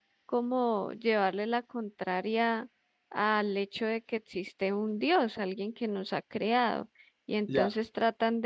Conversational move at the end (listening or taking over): listening